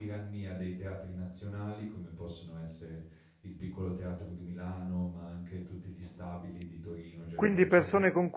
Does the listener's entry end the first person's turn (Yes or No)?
Yes